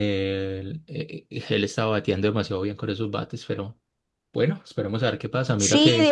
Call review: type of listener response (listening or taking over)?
taking over